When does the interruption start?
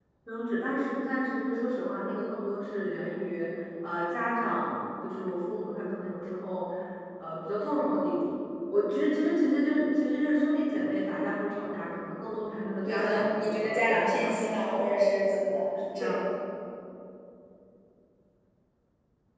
12.9 s

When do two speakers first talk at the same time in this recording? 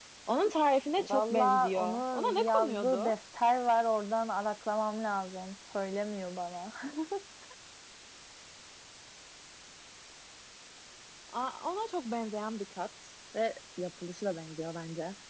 1.0 s

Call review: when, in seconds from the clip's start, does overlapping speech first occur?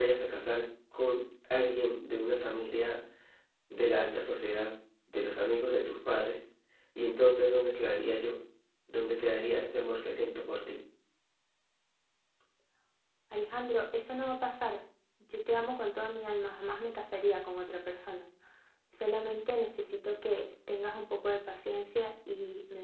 none

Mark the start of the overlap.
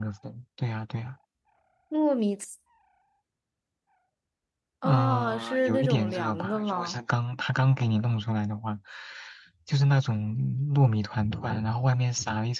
4.8 s

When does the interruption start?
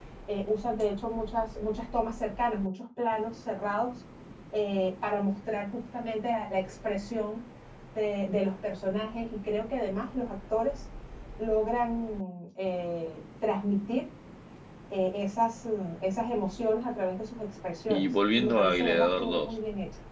17.9 s

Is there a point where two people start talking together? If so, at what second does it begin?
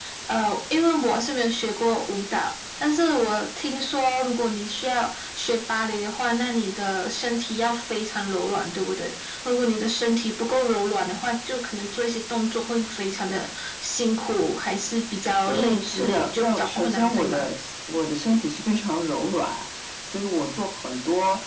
15.4 s

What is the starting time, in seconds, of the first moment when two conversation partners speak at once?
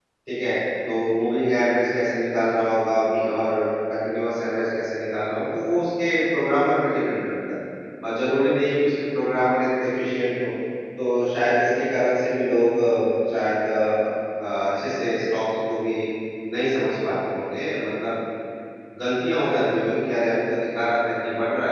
none

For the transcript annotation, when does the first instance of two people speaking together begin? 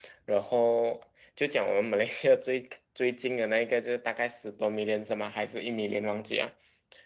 none

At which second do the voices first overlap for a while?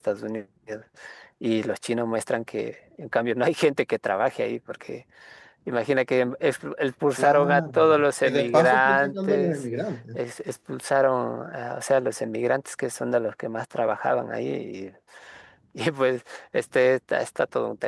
7.2 s

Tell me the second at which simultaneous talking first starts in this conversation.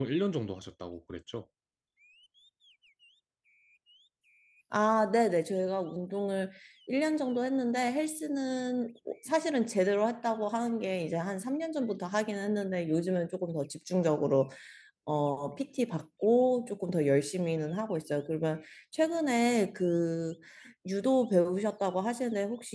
none

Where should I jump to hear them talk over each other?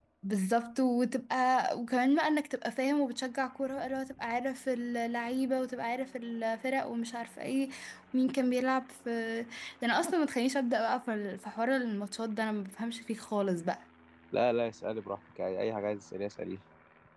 none

